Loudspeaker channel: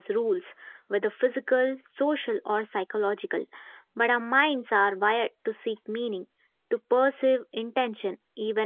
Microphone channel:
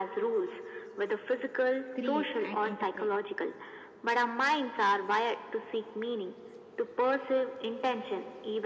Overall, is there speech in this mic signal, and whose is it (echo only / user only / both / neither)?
both